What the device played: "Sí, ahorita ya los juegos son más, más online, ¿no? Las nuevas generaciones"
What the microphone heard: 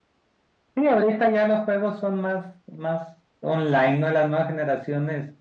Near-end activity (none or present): none